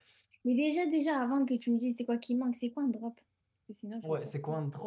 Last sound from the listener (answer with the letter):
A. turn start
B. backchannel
A